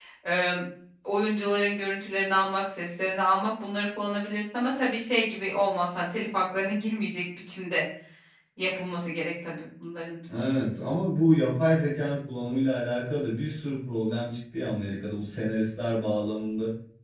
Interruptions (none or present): none